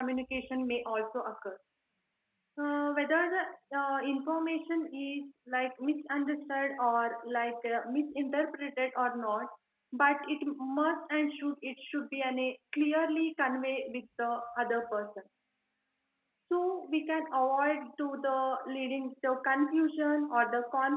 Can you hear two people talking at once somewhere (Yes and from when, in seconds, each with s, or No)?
No